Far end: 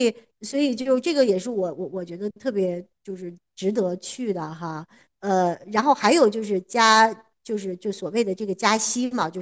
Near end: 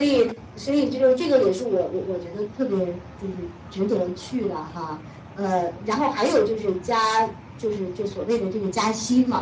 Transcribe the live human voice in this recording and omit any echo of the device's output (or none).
none